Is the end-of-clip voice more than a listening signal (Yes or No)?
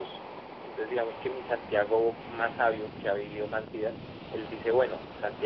No